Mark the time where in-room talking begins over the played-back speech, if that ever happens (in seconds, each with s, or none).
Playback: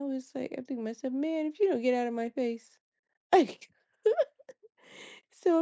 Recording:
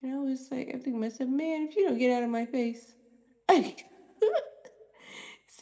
none